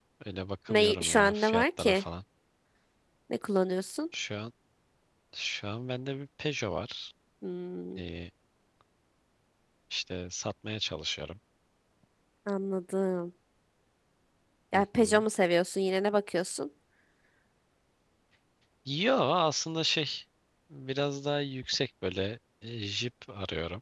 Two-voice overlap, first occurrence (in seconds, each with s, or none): 0.7 s